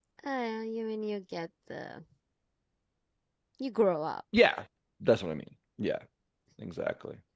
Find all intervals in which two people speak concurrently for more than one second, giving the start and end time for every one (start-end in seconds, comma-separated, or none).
none